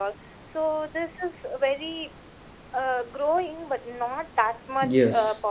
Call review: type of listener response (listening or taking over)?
taking over